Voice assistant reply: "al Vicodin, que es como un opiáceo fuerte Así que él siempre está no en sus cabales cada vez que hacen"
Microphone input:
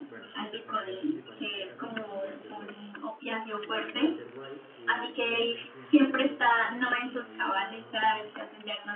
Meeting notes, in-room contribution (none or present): present